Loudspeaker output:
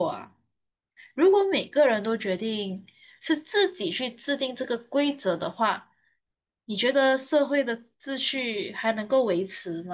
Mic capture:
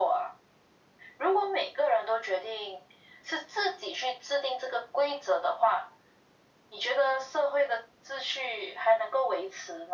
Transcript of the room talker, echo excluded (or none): none